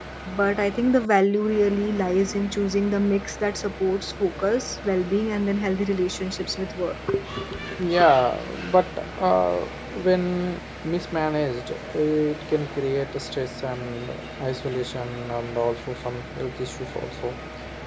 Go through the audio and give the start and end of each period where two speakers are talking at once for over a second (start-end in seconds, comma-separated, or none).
none